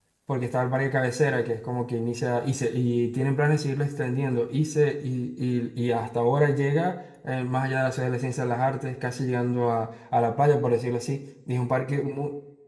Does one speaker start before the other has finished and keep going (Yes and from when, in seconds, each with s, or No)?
No